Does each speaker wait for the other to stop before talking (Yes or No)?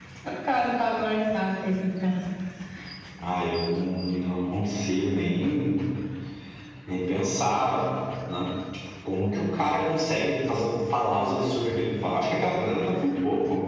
Yes